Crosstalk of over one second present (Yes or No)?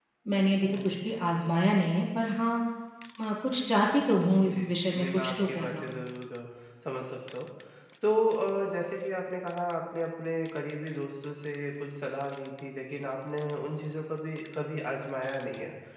Yes